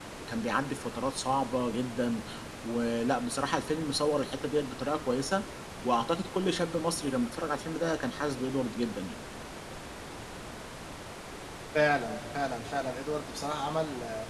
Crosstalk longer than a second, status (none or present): none